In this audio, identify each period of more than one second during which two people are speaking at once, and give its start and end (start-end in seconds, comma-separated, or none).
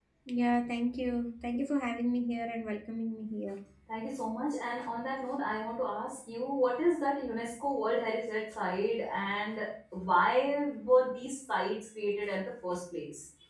none